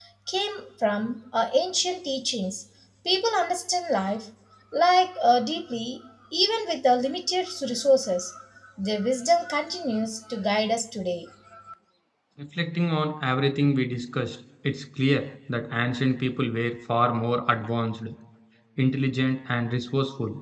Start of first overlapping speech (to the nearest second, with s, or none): none